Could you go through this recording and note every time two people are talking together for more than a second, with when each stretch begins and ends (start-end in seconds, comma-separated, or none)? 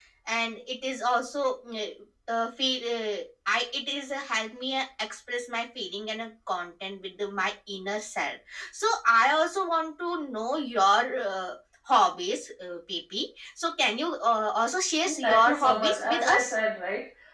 15.0-16.6